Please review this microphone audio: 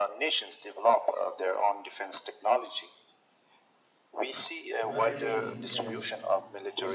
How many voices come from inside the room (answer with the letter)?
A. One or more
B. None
A